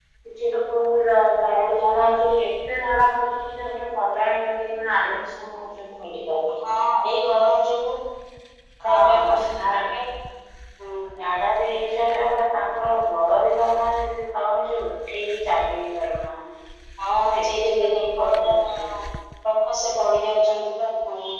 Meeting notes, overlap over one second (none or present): present